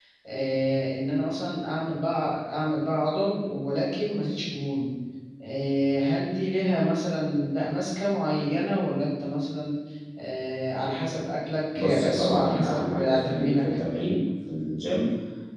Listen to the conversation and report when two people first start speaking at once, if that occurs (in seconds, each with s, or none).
11.8 s